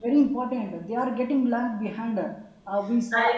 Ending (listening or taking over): listening